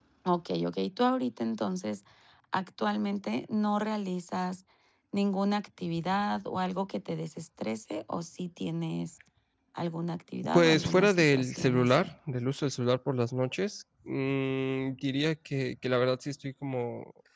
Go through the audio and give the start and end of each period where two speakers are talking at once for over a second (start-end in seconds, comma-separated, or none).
10.5-12.1